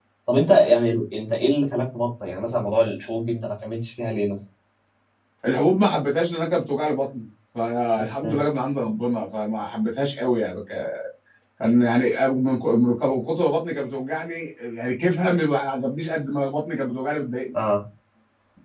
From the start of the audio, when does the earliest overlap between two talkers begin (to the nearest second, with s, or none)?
none